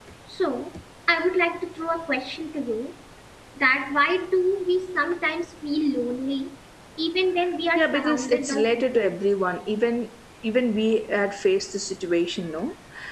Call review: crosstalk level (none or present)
present